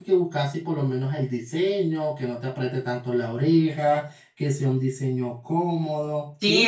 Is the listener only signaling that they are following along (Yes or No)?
No